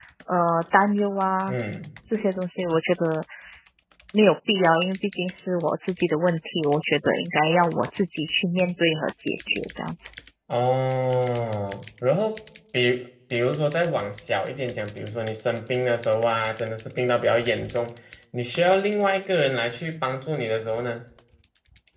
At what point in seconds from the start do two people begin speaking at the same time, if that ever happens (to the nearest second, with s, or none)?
none